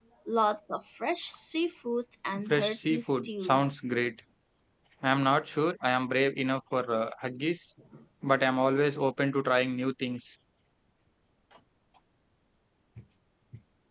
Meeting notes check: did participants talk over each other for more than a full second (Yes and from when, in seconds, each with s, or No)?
Yes, from 2.5 s